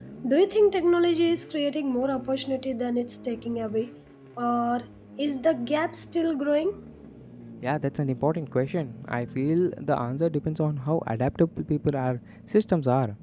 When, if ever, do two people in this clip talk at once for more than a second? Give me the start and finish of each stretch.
none

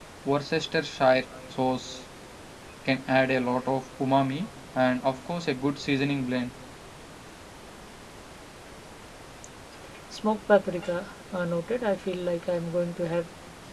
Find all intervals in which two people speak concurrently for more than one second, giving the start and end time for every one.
none

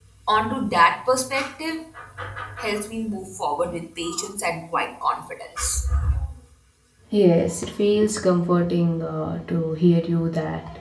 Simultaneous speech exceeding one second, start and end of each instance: none

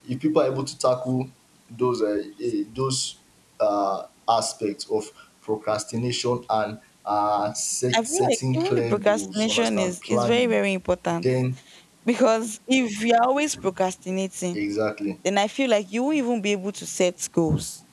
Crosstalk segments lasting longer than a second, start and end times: 8.0-10.6

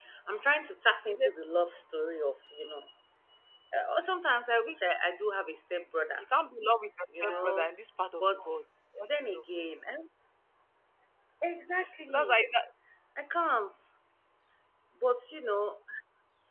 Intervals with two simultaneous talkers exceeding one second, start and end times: none

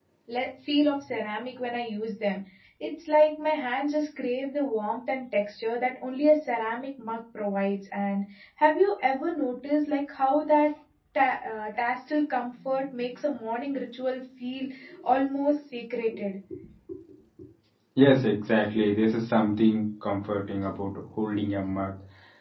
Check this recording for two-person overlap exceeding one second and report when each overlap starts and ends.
none

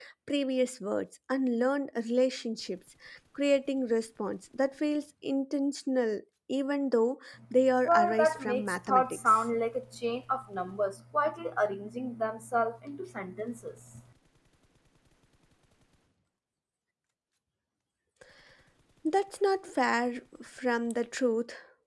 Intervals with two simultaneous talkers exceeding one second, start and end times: 7.8-9.4

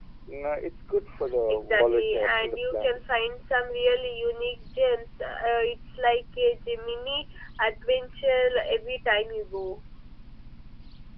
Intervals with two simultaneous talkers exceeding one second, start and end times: 1.5-3.0

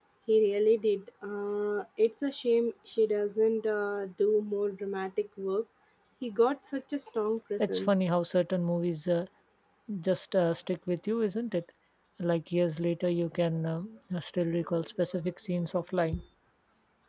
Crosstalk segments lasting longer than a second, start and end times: none

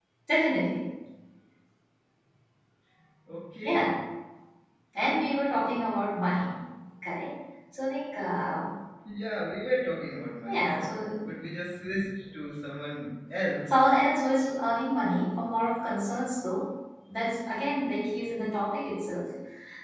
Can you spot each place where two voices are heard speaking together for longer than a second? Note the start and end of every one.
none

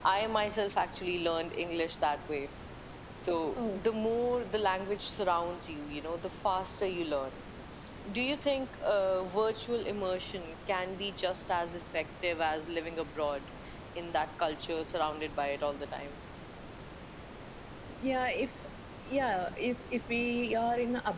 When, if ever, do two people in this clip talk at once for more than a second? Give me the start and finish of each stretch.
none

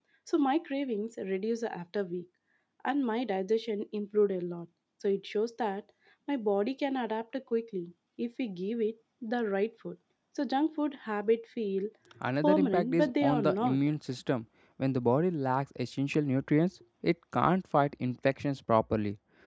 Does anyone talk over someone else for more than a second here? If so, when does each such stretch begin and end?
12.4-13.8

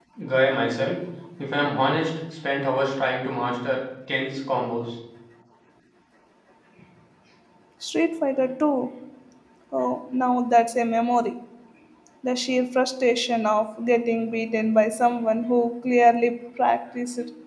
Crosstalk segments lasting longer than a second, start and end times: none

